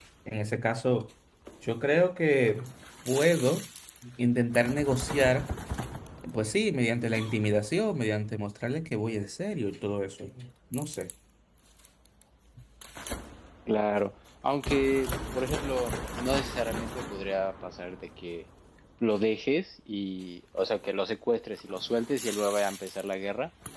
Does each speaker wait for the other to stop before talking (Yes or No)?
Yes